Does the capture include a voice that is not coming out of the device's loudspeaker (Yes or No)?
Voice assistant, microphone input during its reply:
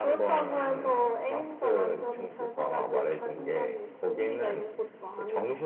No